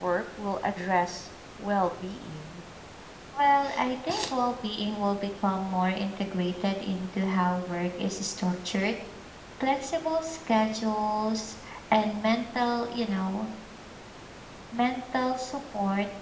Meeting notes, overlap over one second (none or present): none